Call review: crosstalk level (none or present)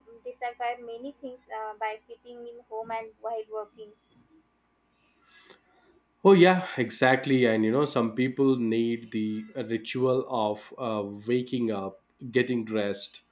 none